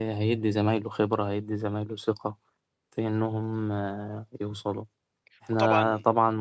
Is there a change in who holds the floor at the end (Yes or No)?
No